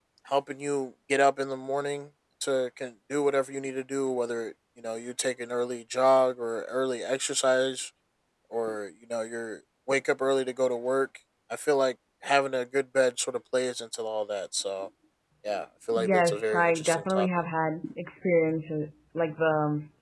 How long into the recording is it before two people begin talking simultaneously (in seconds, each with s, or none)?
15.9 s